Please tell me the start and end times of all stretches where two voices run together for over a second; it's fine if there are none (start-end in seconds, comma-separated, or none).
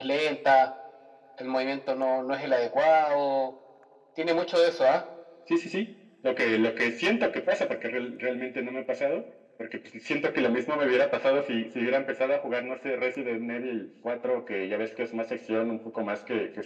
none